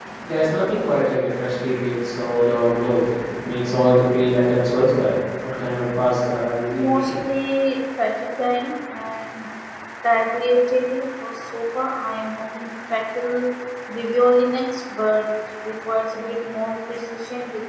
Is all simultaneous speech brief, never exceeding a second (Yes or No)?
Yes